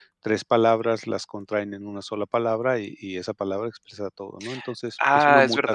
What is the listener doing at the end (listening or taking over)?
taking over